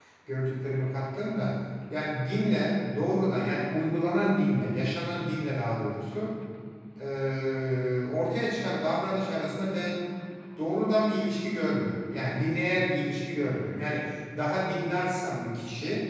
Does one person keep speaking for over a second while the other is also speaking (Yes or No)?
No